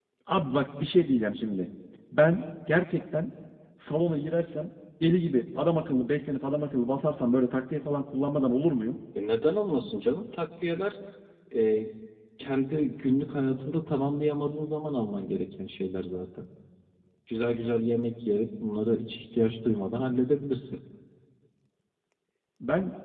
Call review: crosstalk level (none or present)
none